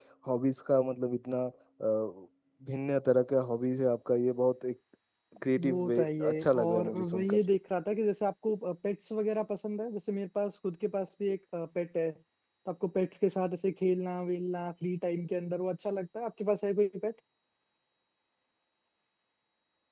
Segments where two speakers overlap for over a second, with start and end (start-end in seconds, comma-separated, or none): 5.6-7.4